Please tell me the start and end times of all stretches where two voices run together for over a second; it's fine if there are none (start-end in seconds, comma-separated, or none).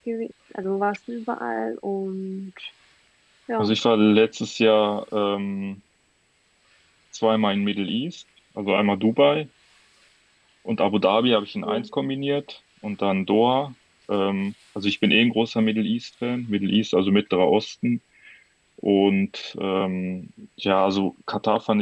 none